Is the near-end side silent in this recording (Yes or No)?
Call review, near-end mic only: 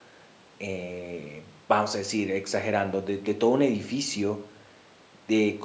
No